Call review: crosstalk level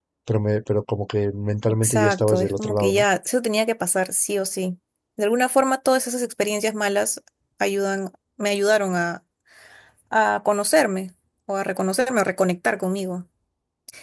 present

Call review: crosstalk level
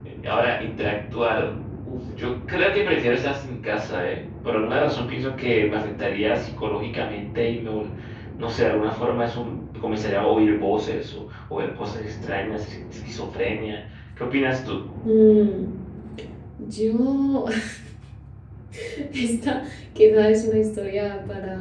none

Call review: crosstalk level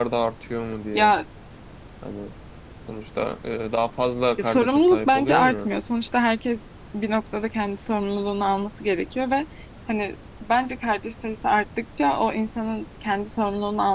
present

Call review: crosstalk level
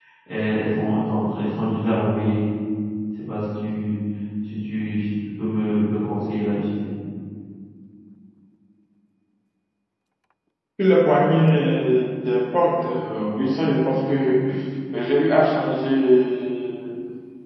none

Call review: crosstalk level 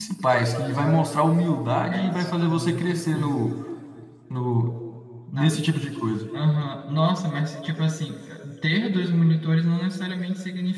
present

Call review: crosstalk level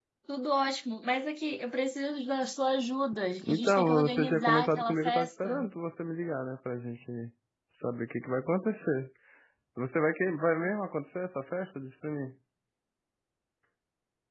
present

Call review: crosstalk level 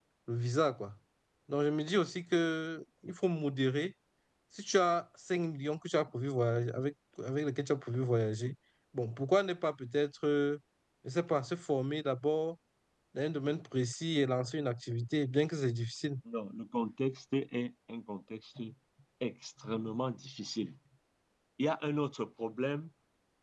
none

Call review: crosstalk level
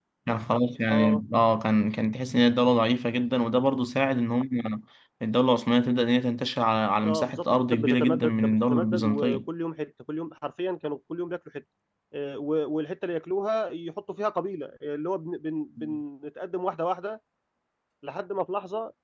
present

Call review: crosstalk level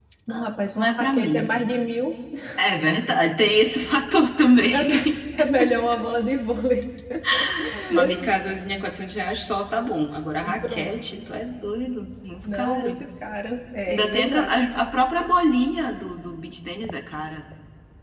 present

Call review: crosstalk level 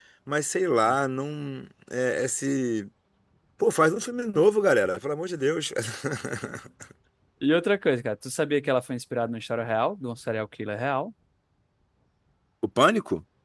none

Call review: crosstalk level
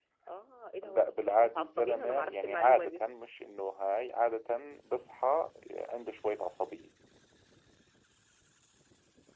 present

